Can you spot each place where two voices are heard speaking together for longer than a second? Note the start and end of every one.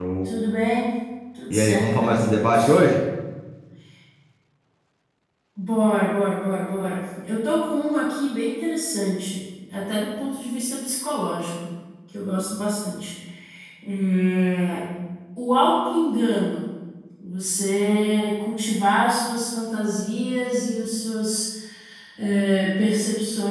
1.5-2.8

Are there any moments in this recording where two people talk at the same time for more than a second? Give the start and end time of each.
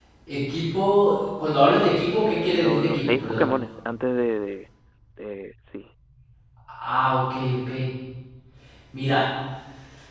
2.1-3.5

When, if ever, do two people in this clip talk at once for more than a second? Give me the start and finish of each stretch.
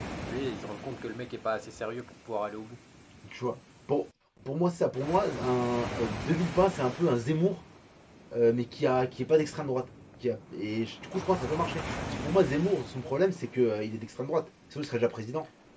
none

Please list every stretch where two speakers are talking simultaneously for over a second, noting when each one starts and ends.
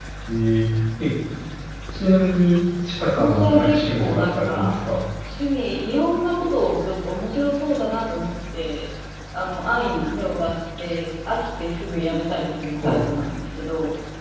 3.0-4.7

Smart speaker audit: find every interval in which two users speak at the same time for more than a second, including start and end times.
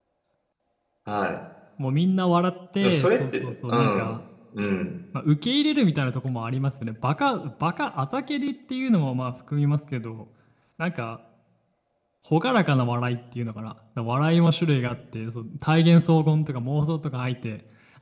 2.8-4.1

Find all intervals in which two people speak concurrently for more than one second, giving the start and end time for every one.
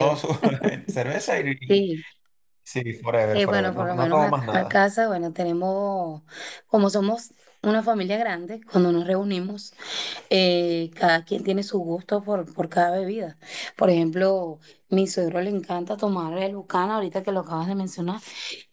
3.3-4.8

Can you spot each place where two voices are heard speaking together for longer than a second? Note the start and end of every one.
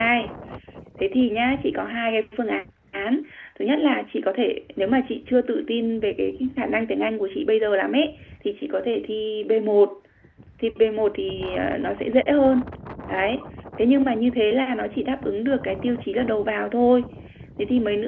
none

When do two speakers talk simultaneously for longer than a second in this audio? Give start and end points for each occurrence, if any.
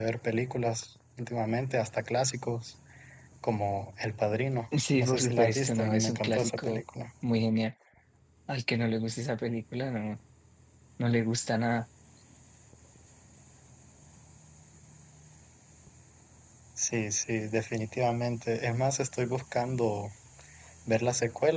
5.0-6.8

